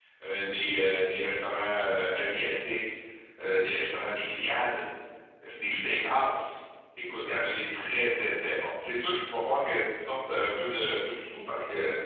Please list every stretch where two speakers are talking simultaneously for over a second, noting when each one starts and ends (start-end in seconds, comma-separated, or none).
none